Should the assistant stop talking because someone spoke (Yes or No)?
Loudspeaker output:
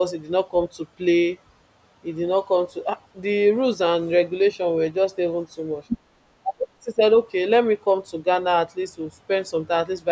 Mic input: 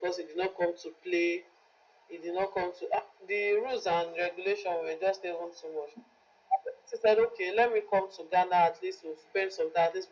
No